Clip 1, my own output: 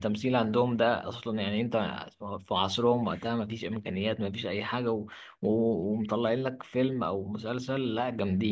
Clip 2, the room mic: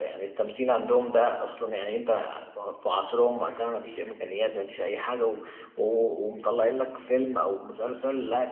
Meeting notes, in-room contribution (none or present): none